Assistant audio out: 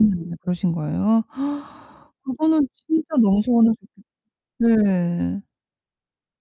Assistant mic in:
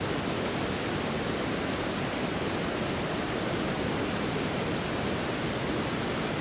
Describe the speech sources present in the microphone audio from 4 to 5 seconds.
neither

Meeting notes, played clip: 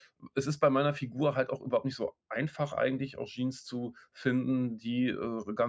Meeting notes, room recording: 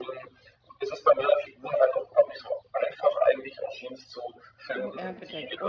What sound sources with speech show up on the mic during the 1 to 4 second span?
echo only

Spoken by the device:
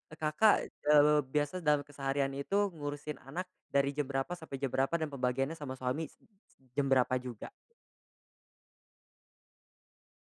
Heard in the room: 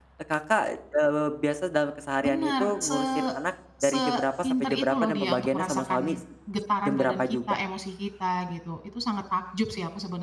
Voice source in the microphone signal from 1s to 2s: echo only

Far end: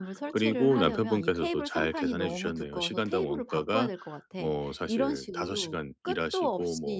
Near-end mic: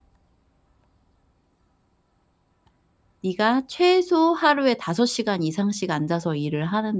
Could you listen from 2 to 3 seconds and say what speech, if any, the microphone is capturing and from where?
neither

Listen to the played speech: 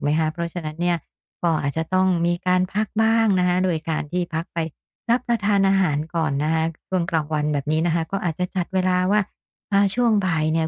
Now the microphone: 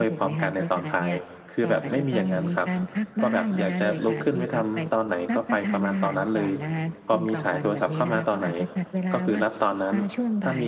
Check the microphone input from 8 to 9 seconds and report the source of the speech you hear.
both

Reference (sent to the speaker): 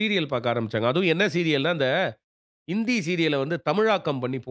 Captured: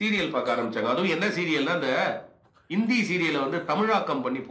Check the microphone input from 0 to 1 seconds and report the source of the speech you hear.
echo only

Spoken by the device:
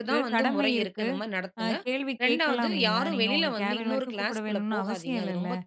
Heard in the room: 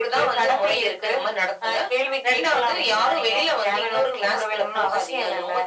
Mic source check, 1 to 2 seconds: echo only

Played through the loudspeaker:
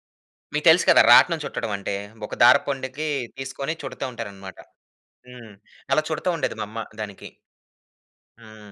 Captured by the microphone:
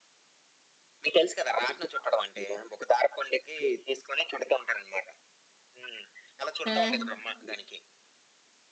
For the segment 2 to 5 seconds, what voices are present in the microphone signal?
echo only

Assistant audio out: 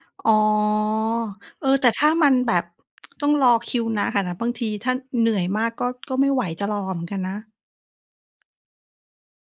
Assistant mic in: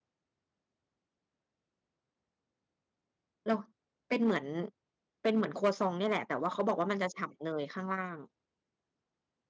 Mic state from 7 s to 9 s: user only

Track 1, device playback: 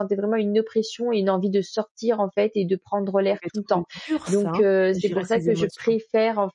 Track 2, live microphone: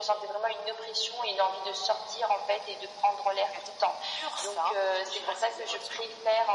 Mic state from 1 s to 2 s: echo only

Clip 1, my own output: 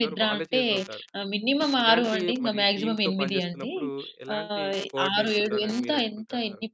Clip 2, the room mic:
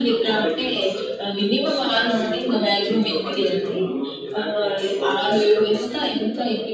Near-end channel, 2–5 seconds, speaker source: echo only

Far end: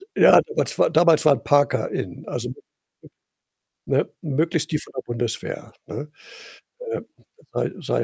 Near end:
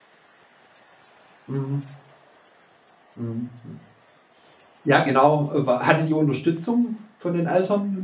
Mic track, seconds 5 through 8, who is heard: user only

